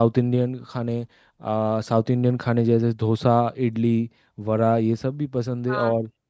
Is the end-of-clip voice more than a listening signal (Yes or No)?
No